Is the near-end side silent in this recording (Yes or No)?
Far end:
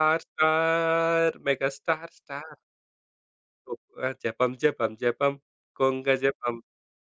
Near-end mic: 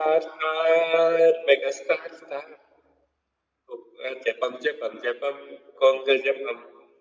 Yes